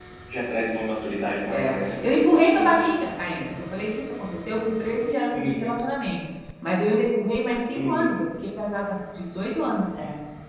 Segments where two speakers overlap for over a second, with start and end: none

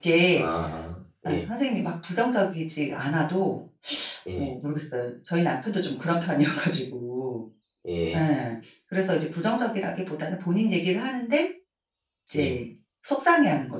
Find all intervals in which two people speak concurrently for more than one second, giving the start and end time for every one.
none

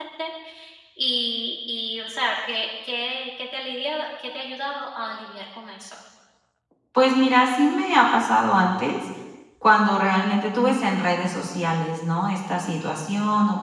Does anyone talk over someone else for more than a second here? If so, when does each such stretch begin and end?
none

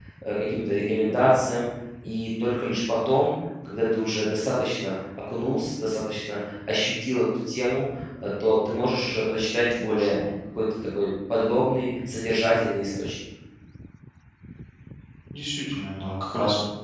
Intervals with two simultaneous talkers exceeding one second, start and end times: none

